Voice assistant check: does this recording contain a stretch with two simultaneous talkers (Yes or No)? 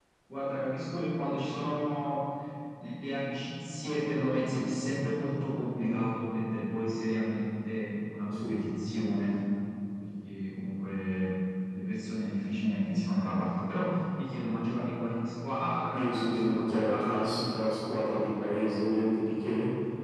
Yes